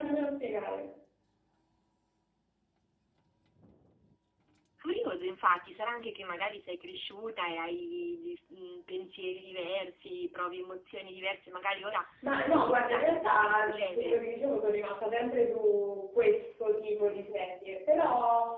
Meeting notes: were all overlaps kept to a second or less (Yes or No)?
No